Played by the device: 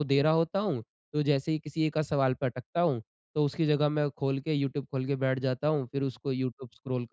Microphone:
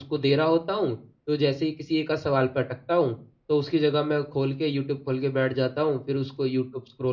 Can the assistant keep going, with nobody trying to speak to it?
Yes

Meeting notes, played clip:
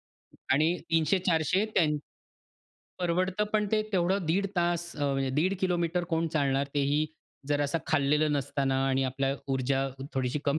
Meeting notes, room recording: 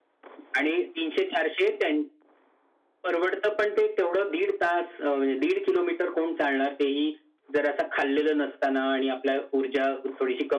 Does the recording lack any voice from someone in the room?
Yes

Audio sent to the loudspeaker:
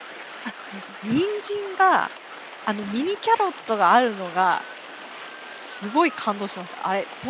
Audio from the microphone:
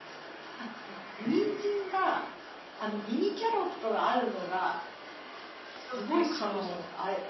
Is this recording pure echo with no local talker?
No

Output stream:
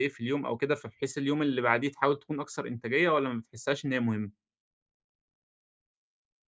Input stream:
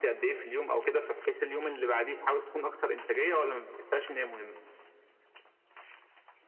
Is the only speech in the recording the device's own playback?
Yes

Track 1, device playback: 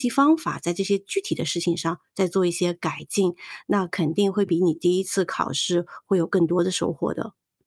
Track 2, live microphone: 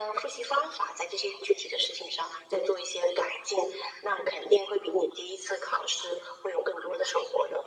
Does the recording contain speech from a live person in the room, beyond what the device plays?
No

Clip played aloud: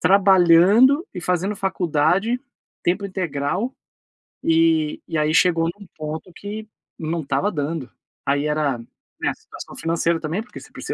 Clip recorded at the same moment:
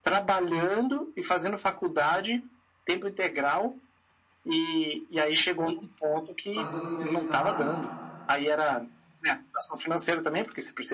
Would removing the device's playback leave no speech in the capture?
No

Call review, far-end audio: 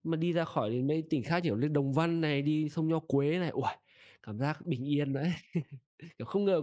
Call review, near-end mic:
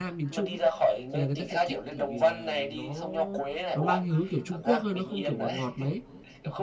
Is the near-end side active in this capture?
Yes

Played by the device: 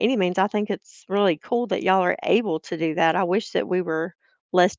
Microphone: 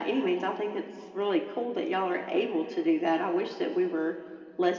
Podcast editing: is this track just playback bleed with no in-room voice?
Yes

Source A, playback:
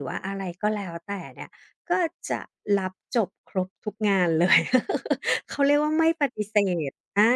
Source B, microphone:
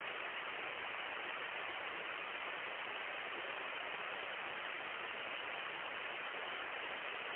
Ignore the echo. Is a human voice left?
No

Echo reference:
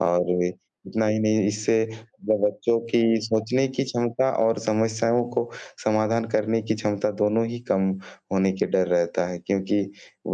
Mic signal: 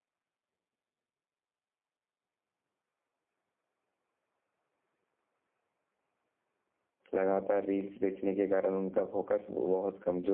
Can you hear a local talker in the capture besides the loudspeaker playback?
Yes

